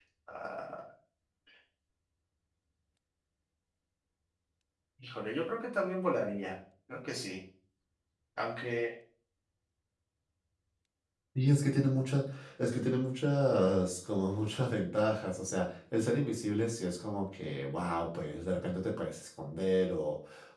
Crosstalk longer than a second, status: none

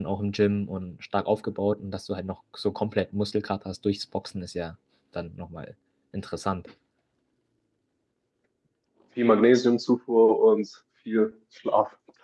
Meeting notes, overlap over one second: none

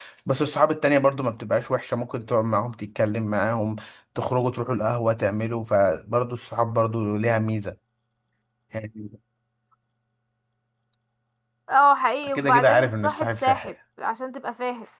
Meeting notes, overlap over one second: present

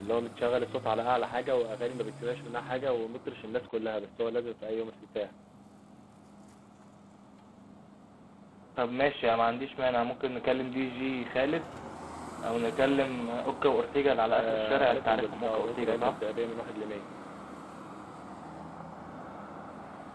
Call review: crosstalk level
present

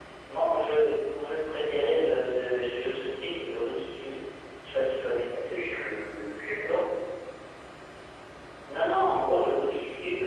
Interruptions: none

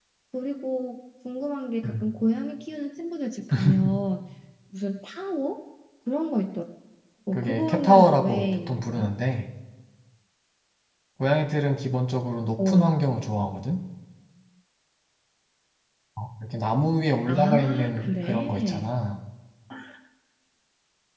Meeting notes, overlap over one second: present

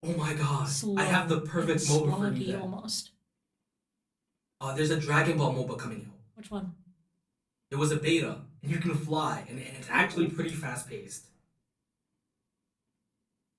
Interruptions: present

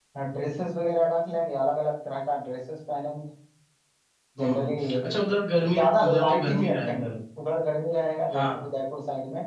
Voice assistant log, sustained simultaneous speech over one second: present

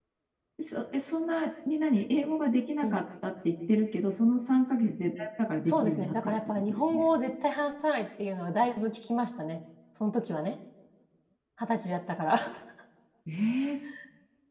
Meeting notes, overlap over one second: present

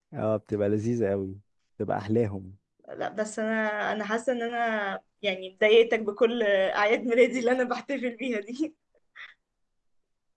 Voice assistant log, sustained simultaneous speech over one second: none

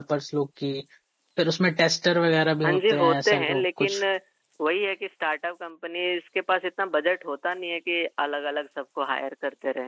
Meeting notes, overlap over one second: present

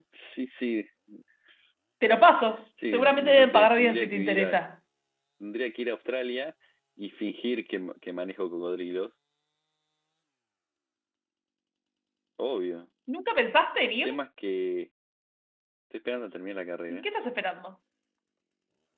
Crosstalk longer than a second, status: present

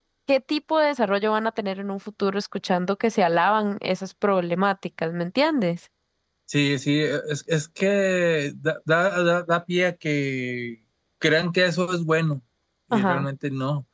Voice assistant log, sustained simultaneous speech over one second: none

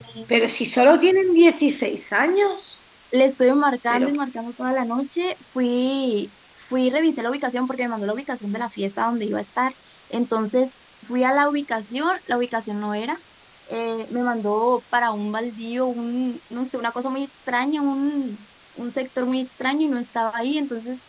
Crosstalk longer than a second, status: none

